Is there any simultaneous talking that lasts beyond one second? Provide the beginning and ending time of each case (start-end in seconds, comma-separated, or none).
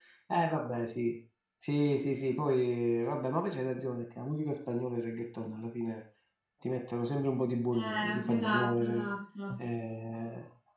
7.7-9.1